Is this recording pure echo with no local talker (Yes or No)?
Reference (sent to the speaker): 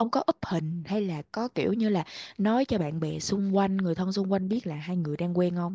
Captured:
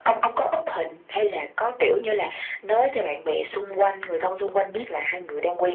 Yes